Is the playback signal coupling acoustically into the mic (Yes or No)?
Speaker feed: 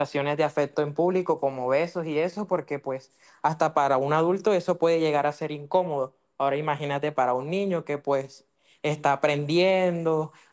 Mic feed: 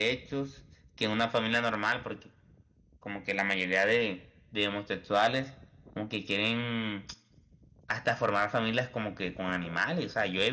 No